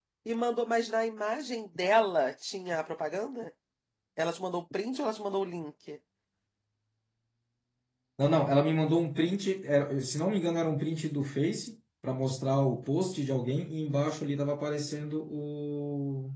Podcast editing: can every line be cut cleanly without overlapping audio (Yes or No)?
Yes